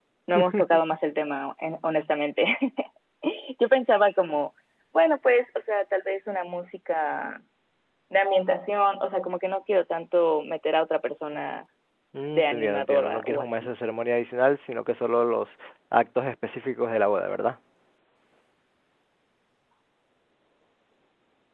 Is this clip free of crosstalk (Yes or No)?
No